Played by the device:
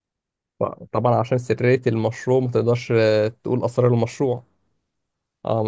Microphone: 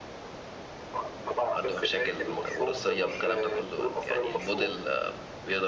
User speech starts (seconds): 2 s

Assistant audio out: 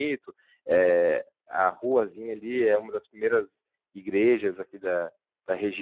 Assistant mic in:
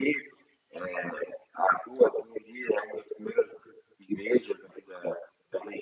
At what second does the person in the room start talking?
none

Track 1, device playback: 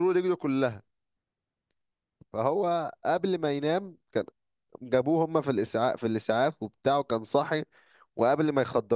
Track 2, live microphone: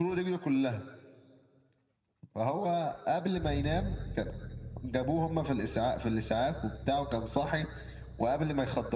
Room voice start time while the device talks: none

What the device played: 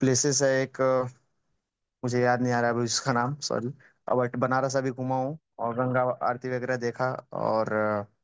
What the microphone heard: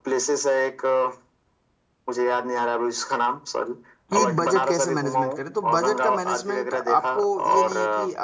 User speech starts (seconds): 4 s

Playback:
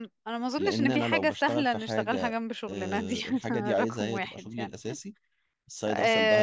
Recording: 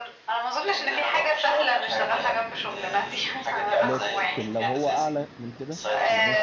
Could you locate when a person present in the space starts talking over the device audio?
4 s

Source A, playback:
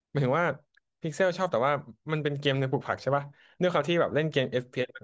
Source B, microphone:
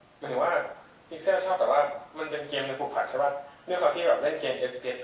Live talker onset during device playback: none

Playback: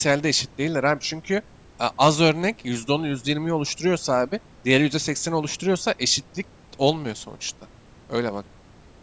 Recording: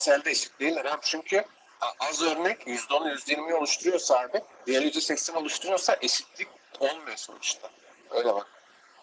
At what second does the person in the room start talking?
none

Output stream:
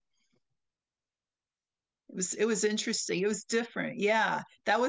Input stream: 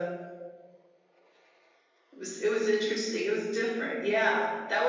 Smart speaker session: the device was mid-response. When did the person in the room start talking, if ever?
none

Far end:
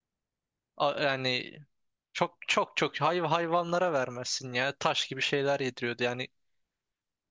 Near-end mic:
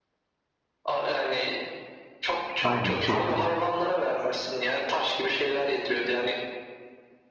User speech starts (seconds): 3 s

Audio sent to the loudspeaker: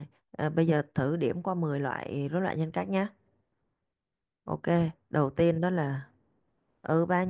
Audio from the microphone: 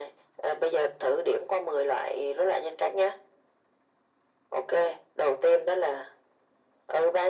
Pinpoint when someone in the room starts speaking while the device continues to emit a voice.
none

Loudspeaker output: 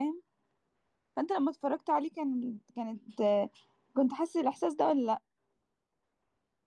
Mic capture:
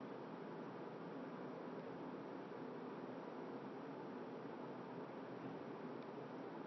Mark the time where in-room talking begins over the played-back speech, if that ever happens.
none

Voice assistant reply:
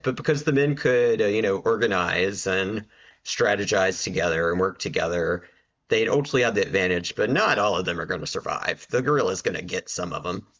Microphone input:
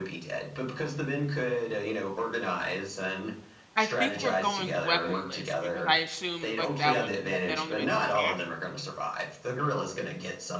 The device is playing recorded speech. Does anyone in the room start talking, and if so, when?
4 s

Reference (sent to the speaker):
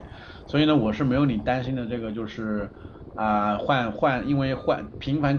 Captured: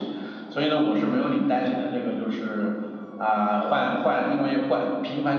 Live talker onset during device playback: none

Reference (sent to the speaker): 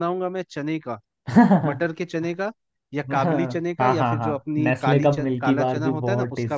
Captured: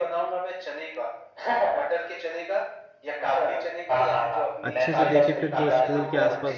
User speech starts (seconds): 5 s

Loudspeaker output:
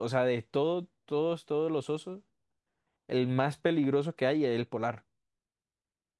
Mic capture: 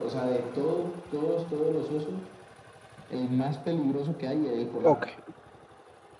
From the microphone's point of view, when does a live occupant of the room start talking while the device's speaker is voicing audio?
5 s

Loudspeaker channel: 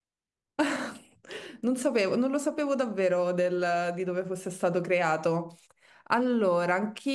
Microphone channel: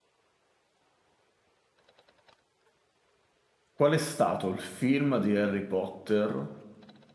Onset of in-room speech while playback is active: 4 s

